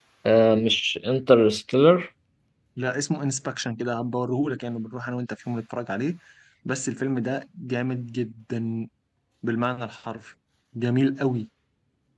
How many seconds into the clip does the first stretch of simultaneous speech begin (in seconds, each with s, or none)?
none